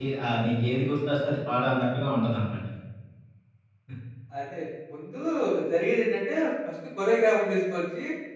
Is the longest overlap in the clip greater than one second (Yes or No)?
No